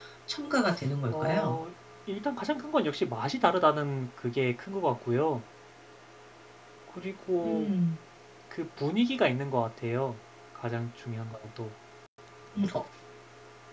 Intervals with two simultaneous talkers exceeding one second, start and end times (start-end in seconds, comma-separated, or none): none